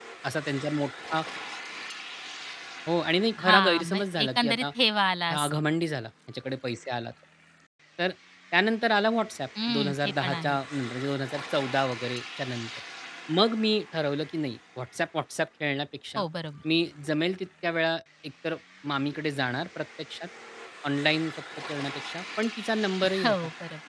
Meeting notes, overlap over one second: present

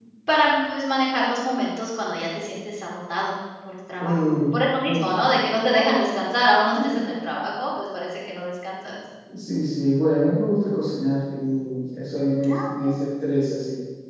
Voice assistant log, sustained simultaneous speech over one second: none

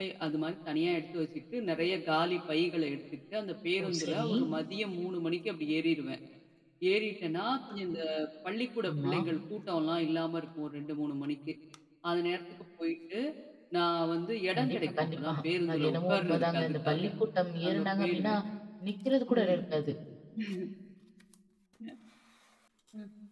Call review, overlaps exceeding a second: present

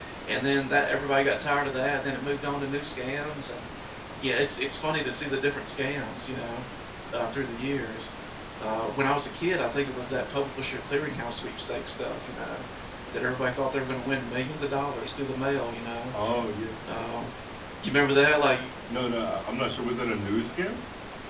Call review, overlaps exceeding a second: none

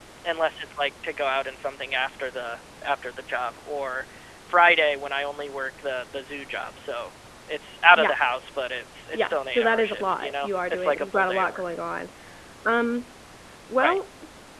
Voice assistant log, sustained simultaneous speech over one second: present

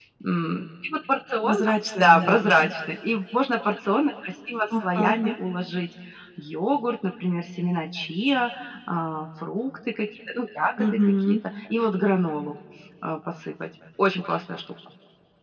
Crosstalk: present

